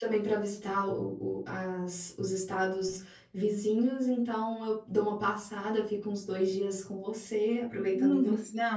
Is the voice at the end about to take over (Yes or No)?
Yes